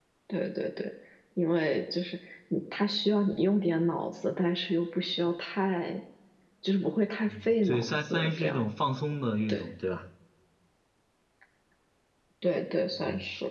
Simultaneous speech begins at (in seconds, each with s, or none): 7.3 s